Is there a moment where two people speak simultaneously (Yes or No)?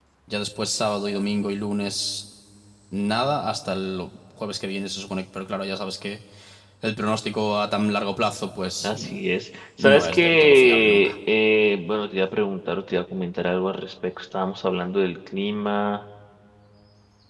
Yes